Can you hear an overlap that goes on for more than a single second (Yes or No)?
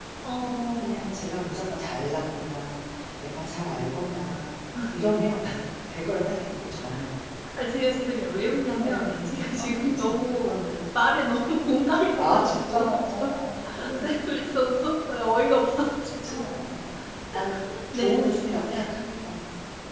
Yes